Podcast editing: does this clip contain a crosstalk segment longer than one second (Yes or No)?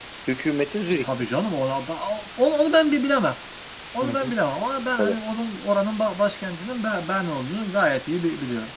No